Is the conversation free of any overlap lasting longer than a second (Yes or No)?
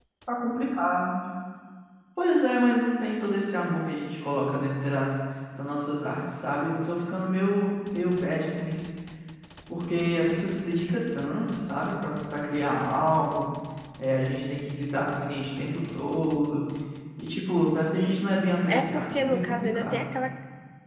No